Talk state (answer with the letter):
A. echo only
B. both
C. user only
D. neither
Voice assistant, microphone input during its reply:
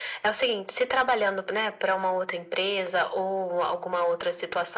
A